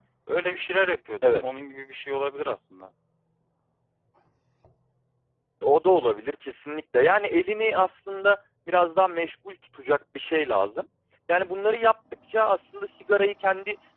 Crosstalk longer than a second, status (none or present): none